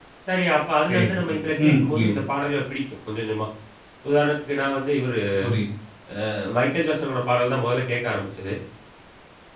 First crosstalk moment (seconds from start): 0.9 s

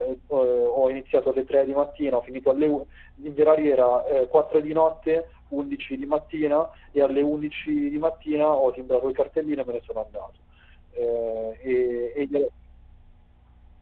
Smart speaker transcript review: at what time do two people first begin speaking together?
none

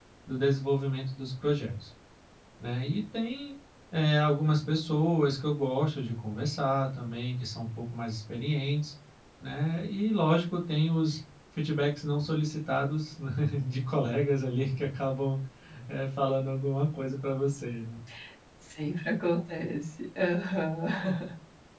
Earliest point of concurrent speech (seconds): none

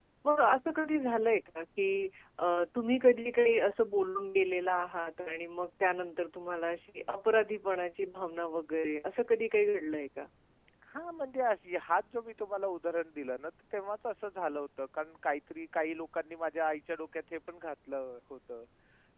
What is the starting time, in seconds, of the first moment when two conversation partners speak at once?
none

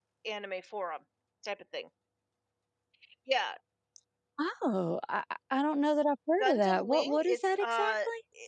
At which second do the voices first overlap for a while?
6.4 s

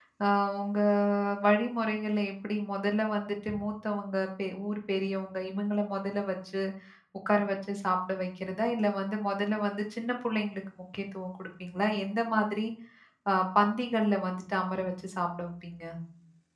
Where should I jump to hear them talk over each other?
none

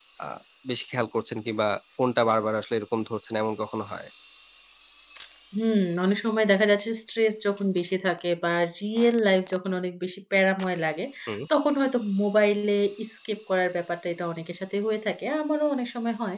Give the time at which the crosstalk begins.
none

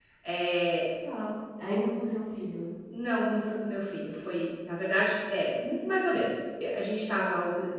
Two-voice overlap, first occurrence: none

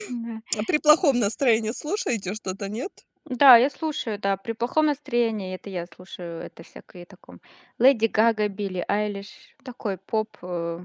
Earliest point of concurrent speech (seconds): none

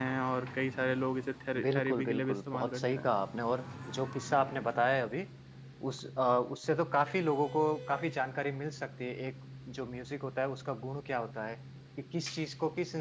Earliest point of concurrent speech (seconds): 1.5 s

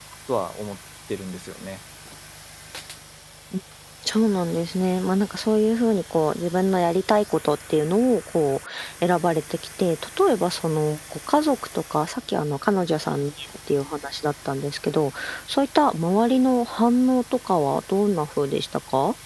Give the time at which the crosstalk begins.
none

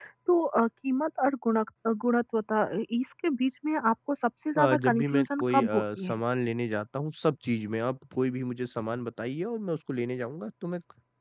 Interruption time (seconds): 4.6 s

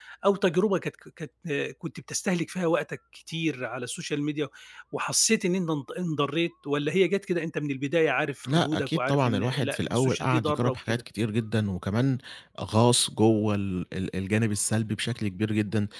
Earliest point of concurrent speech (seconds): 8.4 s

